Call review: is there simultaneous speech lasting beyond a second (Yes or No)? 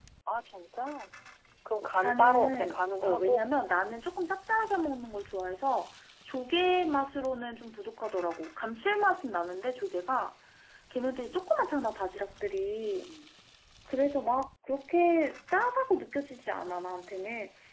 Yes